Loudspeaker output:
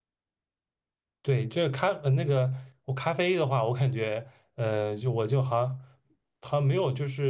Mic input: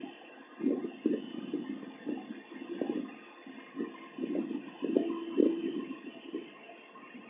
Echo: none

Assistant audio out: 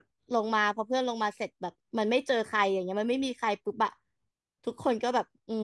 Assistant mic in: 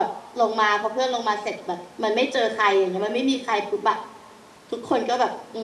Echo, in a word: present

